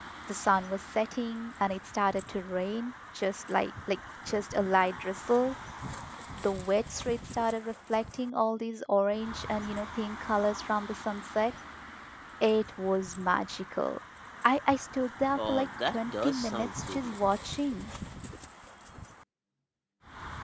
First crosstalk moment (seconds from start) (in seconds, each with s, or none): 15.4 s